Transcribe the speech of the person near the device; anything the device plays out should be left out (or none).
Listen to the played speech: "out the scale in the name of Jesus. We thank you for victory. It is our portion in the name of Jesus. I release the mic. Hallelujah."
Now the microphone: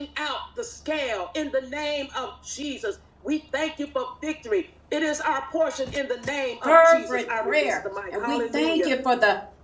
fervent prayer. And we thank you for the